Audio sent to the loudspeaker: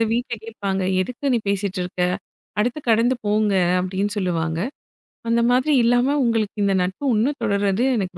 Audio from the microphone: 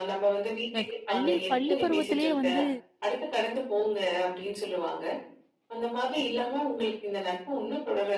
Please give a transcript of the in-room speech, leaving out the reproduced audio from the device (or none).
எனக்கு பள்ளி பள்ளி பருவத்திலேயே வந்து